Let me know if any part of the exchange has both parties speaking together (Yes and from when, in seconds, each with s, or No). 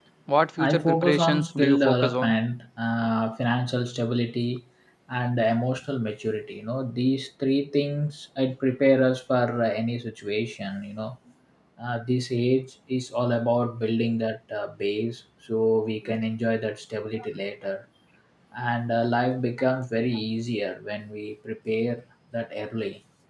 Yes, from 0.6 s